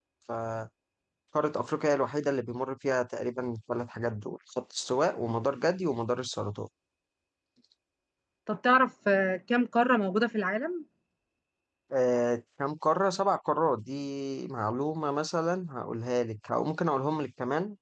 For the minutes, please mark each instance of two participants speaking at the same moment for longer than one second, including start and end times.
none

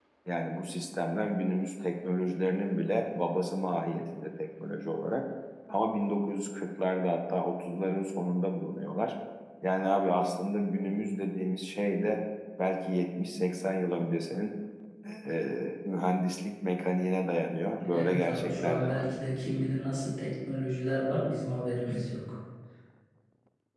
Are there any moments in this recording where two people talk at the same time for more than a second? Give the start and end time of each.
17.9-19.4

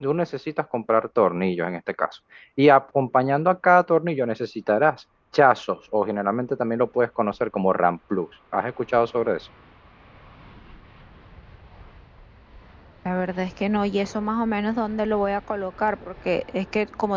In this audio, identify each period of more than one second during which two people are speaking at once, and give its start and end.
none

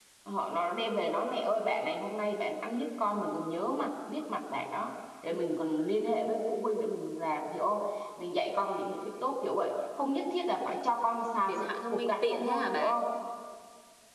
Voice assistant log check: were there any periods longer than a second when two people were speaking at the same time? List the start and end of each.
11.5-13.0

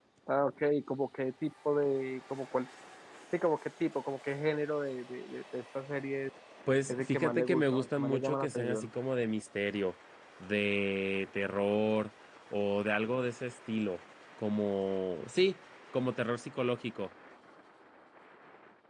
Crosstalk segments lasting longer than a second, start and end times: 6.9-8.9

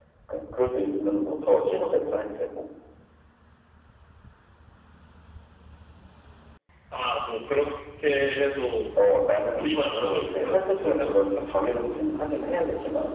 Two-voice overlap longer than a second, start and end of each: 9.5-11.1

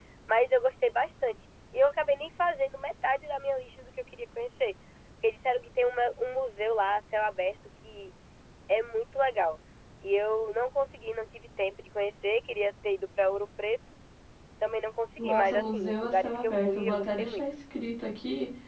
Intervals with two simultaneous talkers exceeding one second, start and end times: 15.2-17.5

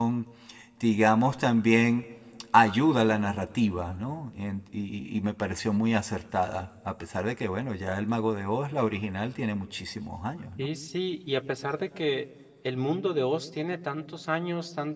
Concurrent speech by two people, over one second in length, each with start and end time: none

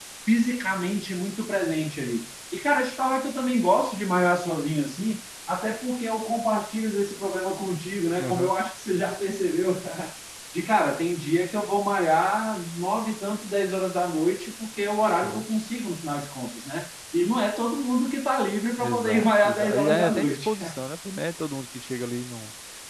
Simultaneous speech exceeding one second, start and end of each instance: 18.8-20.5

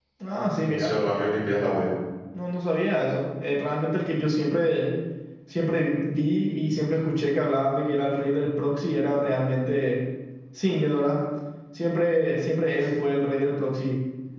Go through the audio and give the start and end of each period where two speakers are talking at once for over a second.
none

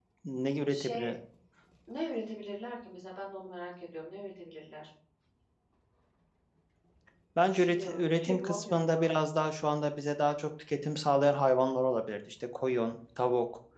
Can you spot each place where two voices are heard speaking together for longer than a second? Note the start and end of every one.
7.5-9.1

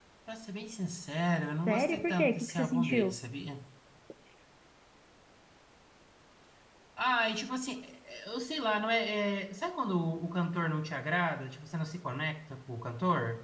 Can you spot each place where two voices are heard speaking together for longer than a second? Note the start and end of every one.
1.7-3.1

